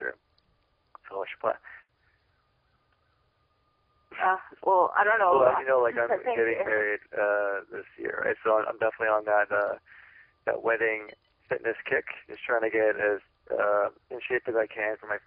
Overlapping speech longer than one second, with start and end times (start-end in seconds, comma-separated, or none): 5.3-6.7